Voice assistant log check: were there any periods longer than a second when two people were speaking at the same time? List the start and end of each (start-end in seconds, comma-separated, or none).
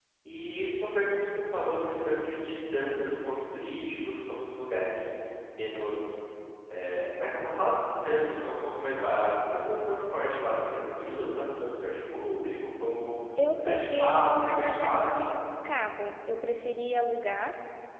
13.5-15.4